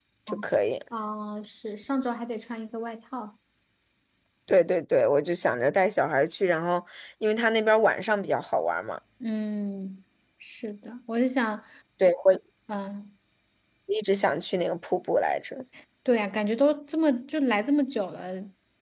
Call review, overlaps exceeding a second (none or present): none